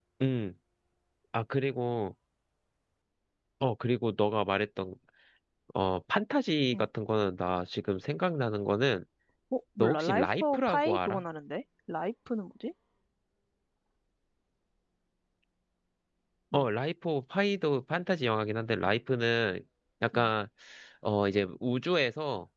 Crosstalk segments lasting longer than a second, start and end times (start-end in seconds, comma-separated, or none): 9.8-11.2